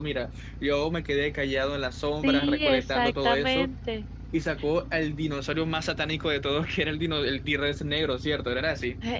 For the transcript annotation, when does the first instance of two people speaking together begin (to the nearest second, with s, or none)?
2 s